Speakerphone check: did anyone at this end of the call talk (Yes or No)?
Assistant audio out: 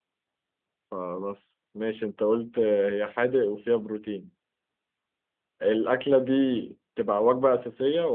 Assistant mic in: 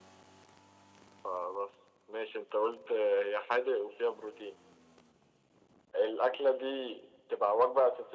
No